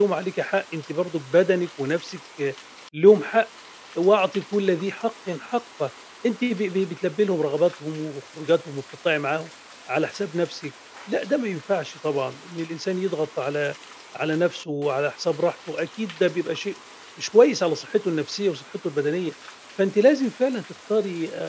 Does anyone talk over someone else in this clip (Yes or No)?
No